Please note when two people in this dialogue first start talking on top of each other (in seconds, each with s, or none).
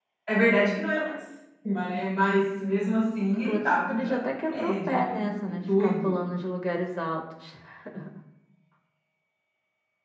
3.3 s